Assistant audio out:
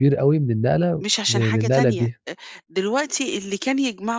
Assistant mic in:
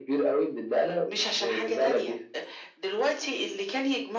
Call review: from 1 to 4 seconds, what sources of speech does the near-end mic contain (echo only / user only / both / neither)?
echo only